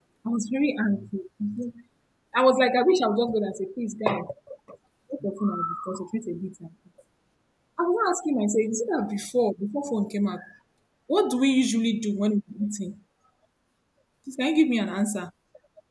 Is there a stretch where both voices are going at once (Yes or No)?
No